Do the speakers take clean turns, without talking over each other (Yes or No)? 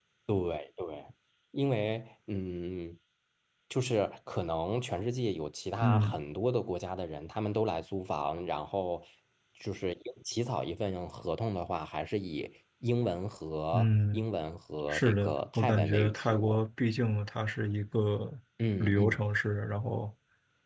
No